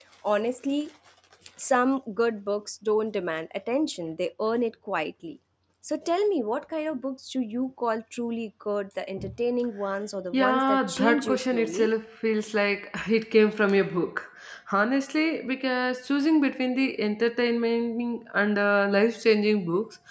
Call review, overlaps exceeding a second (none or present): present